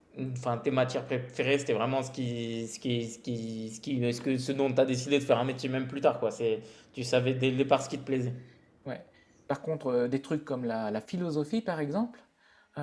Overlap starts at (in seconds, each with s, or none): none